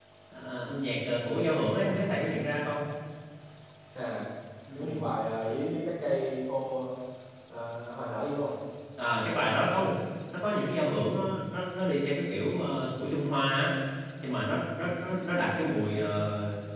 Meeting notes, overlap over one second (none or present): none